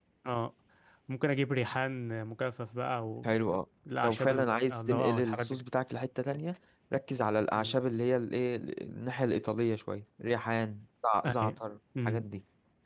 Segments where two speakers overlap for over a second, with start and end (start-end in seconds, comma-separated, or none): 4.0-5.6